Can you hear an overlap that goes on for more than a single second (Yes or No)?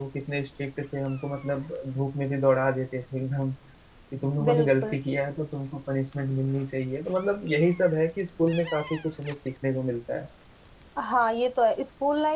No